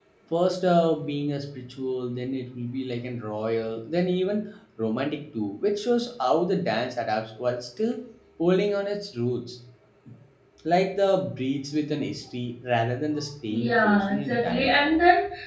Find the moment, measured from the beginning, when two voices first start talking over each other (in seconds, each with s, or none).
13.5 s